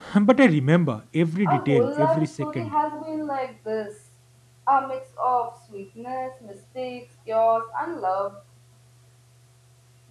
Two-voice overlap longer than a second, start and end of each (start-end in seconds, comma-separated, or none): 1.4-2.7